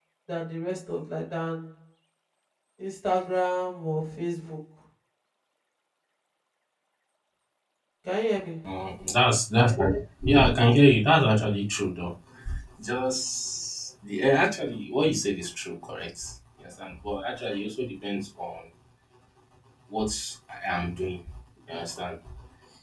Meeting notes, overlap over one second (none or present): none